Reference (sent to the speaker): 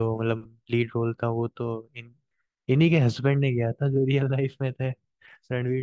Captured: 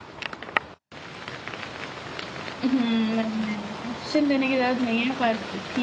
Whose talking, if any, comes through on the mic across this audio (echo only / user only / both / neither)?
user only